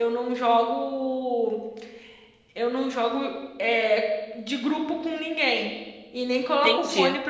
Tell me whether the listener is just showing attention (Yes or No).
Yes